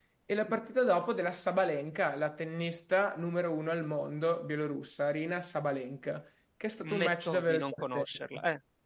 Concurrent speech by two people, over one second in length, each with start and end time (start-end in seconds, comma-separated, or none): 6.8-8.1